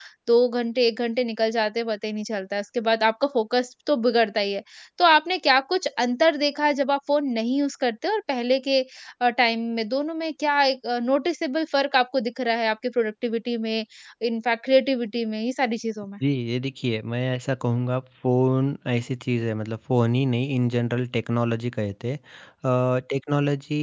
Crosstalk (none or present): none